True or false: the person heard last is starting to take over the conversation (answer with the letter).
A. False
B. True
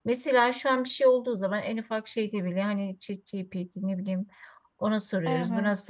A